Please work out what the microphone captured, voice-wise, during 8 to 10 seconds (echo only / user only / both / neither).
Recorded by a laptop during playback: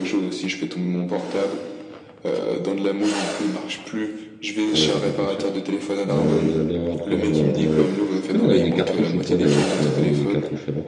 both